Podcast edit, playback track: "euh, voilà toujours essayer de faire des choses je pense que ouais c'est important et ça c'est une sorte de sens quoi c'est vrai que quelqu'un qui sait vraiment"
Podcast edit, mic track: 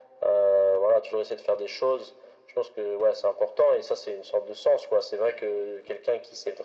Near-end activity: none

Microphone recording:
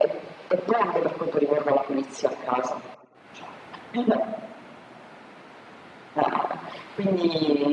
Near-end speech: none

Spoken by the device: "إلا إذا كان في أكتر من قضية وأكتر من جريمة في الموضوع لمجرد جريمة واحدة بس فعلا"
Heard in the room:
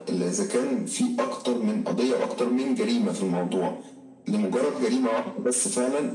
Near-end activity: none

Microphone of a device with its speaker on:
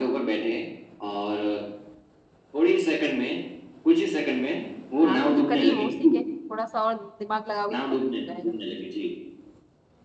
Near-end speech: present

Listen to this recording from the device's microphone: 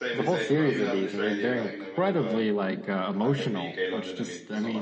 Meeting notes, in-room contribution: present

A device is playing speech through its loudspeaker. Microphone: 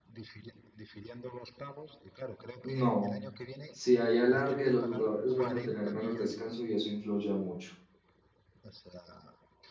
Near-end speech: present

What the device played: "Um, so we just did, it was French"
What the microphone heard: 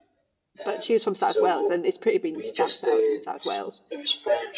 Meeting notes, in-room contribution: present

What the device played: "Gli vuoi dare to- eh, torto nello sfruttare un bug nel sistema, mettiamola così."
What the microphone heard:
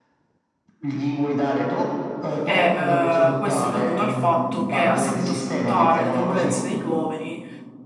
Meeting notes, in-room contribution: present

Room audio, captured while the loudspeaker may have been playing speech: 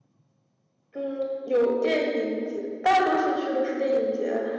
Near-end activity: none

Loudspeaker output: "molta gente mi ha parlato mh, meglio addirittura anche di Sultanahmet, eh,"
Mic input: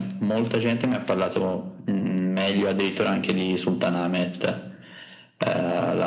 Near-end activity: none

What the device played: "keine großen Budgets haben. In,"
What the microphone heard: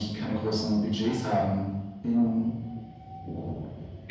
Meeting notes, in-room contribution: none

